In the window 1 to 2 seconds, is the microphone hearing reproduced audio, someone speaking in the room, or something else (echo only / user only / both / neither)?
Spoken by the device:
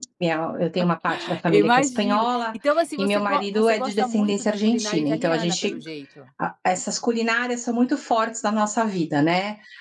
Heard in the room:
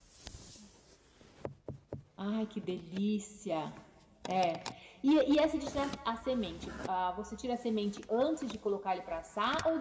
neither